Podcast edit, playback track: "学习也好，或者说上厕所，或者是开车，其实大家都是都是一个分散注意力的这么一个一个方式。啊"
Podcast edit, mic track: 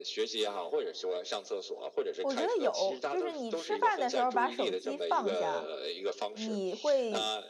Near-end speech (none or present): present